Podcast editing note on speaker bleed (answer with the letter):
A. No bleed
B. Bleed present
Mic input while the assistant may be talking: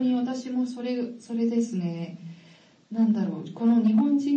B